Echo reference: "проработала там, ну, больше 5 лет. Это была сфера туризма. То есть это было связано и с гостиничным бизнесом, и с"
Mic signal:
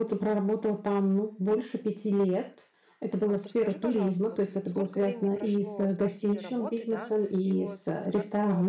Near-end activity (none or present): present